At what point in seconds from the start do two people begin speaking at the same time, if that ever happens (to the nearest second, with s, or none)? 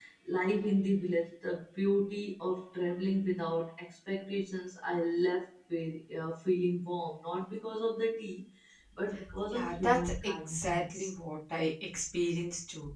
9 s